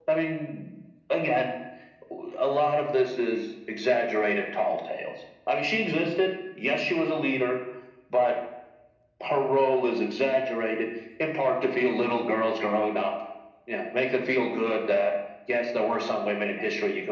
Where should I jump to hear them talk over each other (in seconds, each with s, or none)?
none